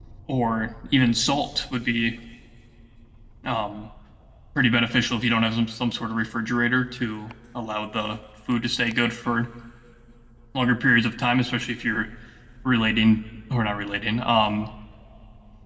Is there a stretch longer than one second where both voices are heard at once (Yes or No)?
No